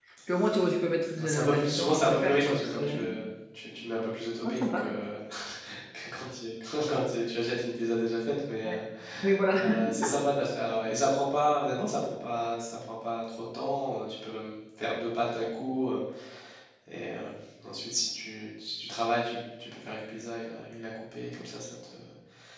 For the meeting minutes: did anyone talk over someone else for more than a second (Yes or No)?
Yes